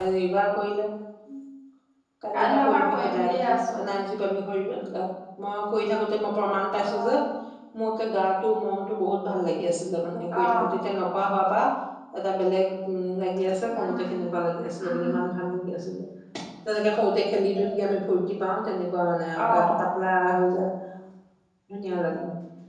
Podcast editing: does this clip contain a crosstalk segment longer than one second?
Yes, from 2.3 s

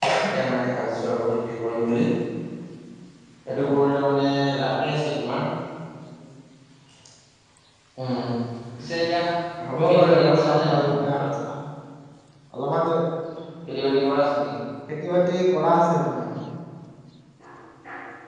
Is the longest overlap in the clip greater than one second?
Yes, from 9.7 s

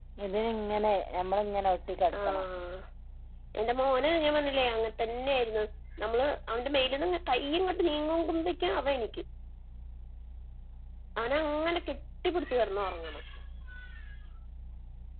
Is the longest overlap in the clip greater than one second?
No

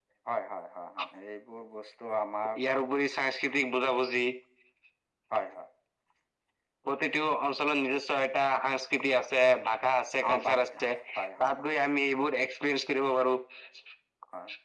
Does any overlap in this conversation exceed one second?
No

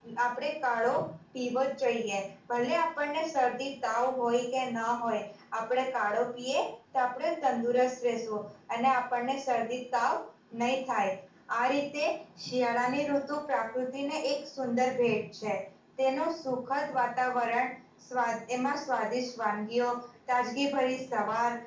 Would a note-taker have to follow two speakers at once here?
No

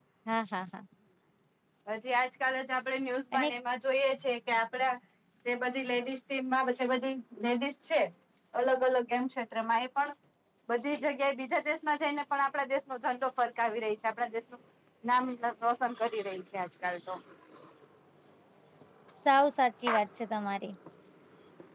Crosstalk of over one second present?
No

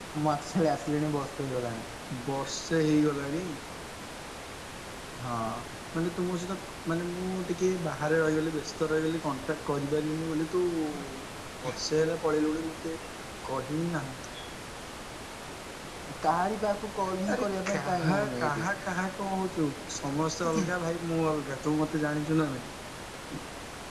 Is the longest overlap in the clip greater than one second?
Yes, from 17.4 s

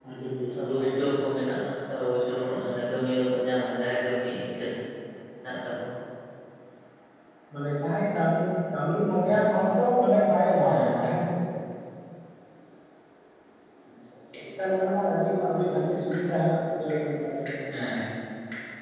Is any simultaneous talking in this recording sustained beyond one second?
No

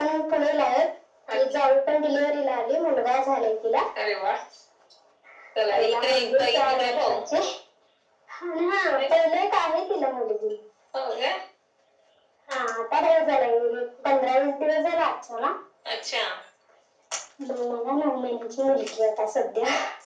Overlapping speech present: Yes, from 5.7 s

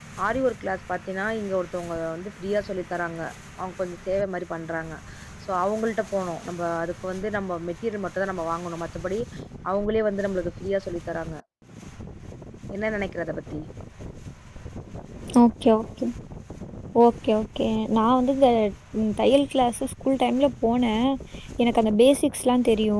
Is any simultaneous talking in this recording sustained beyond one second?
No

